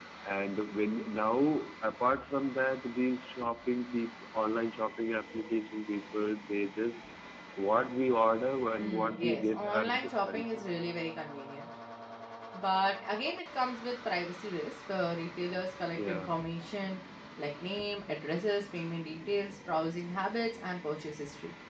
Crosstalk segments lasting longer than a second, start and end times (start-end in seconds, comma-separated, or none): 8.8-10.7